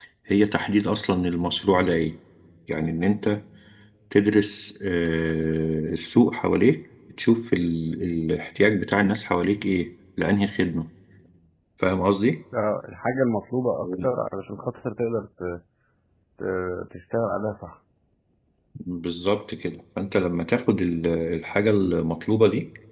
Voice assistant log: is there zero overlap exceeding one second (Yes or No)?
Yes